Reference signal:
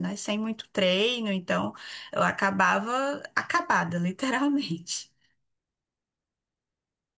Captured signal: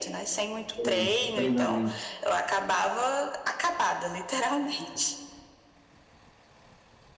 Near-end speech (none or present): present